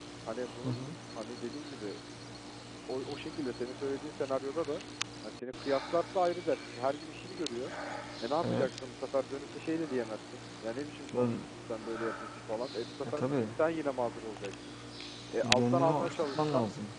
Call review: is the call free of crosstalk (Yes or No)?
No